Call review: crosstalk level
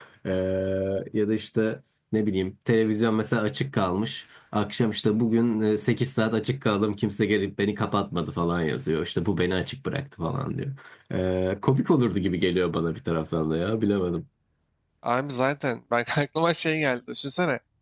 none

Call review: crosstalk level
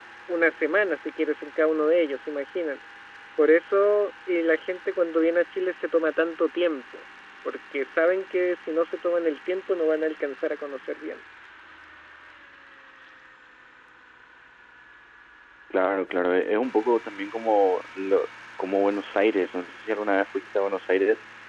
none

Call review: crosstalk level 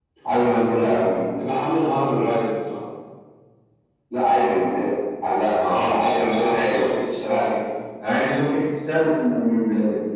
present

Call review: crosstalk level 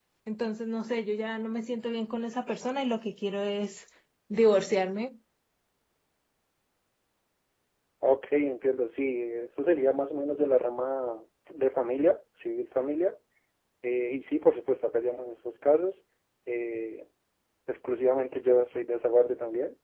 none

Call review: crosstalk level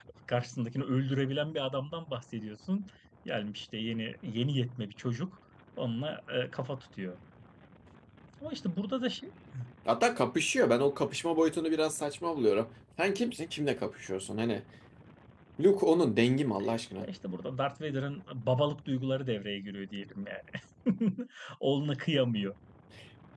none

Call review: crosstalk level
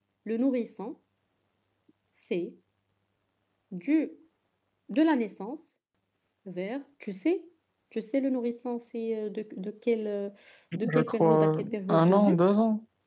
present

